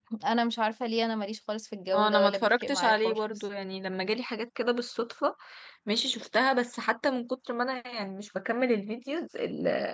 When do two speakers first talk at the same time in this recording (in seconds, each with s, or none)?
1.9 s